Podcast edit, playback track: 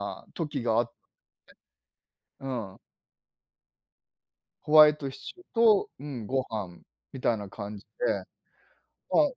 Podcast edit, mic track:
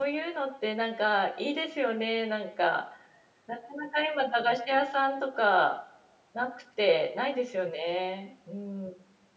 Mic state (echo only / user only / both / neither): user only